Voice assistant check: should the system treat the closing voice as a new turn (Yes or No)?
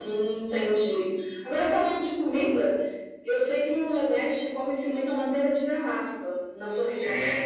Yes